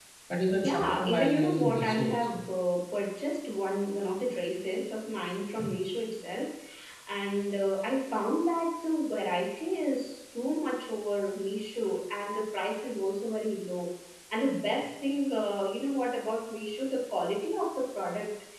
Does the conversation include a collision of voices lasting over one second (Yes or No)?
Yes